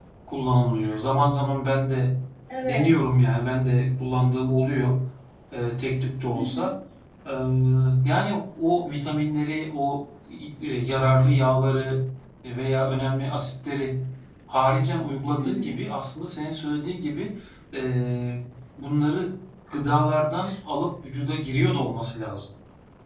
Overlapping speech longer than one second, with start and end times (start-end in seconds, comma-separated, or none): none